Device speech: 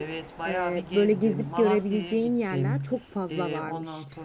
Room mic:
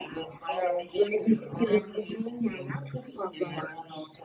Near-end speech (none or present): none